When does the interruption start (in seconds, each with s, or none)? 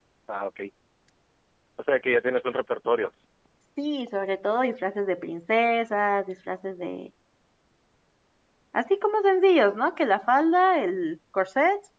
none